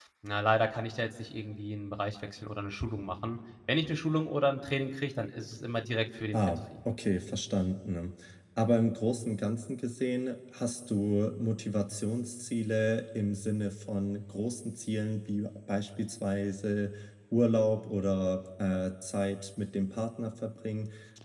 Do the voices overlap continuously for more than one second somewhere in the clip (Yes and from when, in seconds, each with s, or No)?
No